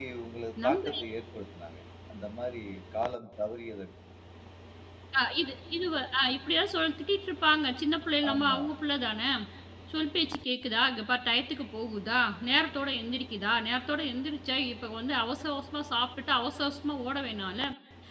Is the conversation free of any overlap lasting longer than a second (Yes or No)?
Yes